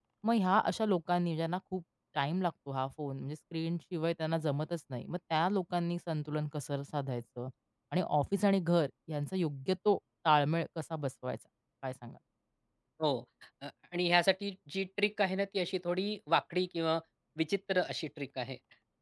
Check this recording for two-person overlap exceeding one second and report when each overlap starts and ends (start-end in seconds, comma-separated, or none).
none